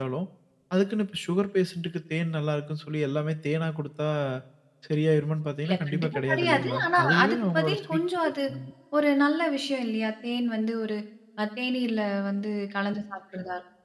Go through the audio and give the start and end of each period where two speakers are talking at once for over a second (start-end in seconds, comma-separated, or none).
5.7-8.3